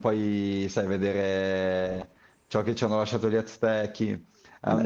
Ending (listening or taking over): listening